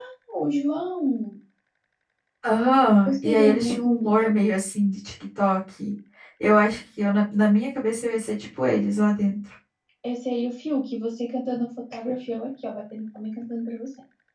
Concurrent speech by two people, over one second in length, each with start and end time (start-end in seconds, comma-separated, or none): 3.1-4.4